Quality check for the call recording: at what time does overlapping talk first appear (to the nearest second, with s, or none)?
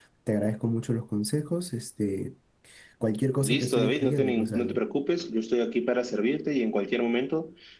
3 s